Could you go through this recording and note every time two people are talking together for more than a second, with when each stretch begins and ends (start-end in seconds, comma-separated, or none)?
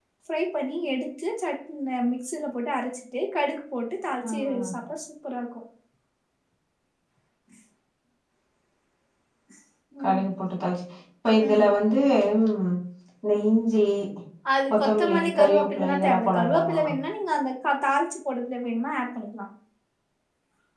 14.7-16.8